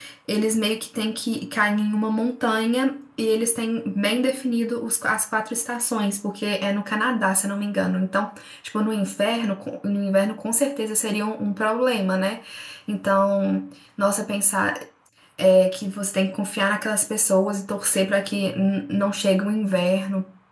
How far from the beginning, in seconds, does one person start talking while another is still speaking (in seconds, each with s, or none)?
none